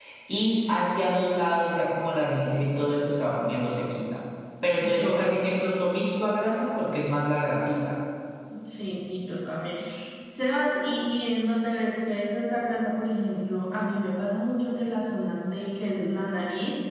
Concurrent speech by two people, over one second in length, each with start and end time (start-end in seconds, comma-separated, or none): none